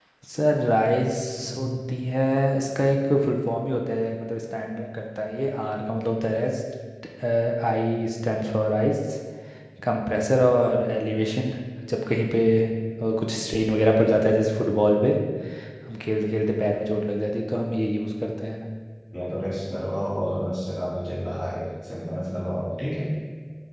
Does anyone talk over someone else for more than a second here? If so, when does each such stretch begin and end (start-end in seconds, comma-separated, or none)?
none